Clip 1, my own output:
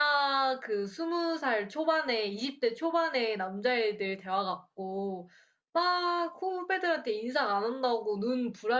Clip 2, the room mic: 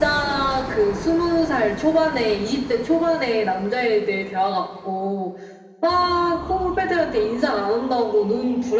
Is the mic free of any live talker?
Yes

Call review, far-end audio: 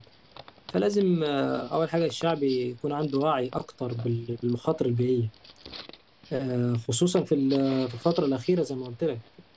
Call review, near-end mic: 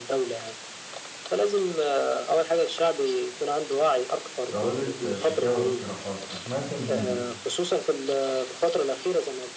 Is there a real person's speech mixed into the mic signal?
Yes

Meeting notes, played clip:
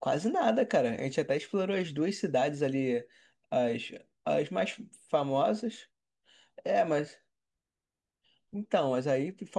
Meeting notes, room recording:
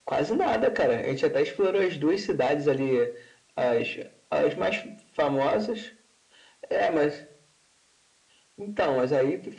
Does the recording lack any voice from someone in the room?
Yes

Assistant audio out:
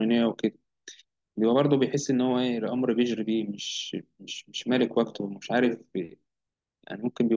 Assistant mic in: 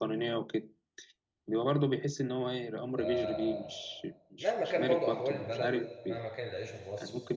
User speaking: Yes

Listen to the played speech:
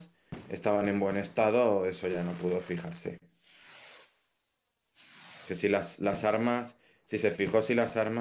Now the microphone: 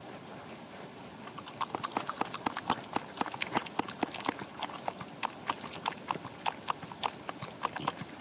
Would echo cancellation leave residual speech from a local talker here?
No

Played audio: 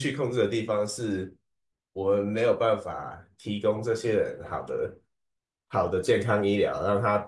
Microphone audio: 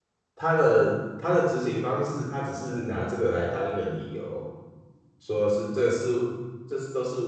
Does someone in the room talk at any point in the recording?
Yes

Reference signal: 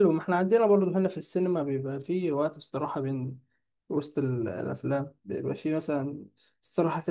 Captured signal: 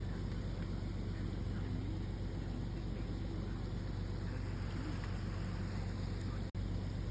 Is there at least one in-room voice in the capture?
No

